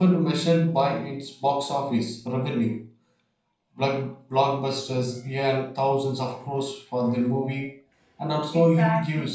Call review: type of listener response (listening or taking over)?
listening